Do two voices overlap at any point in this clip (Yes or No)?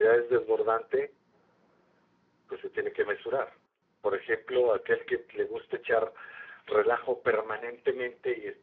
No